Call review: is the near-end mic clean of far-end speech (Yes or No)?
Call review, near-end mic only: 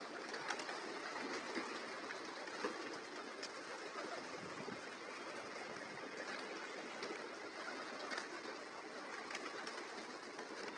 Yes